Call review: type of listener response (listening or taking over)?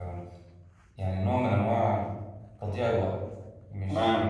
listening